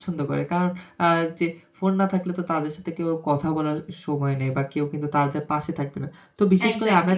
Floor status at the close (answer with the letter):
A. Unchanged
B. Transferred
A